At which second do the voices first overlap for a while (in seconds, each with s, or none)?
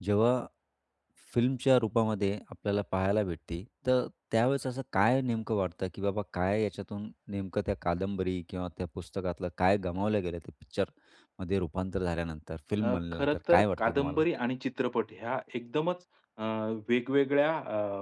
12.8 s